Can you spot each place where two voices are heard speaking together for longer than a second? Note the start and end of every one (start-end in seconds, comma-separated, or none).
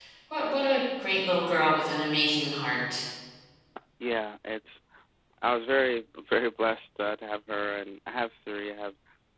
none